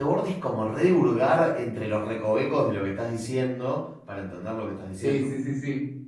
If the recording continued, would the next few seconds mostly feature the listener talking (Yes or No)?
Yes